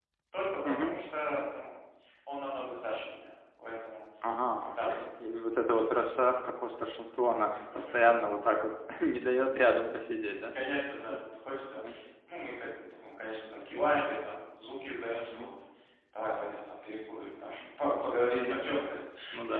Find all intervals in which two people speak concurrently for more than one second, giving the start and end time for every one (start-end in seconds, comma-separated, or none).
none